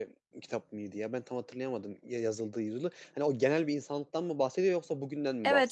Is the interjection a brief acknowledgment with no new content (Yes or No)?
No